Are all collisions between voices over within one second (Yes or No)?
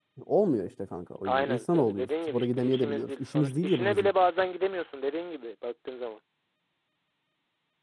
No